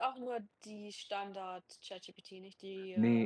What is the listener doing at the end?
taking over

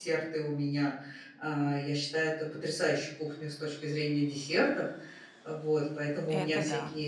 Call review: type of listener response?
listening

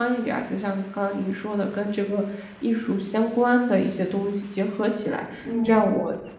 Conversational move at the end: listening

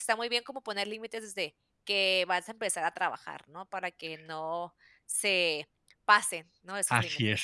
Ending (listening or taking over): taking over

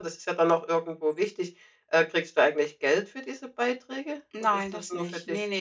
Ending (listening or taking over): taking over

